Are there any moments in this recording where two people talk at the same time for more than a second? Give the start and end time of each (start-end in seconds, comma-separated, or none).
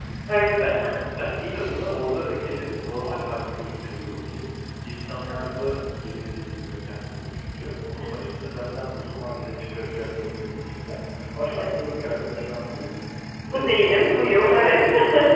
13.4-14.8